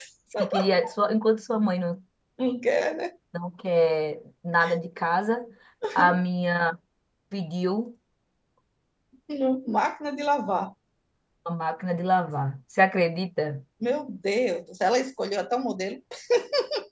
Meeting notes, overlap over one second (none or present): none